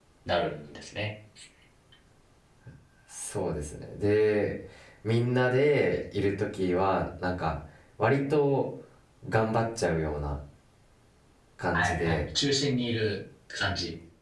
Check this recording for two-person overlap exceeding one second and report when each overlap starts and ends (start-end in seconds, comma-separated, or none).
none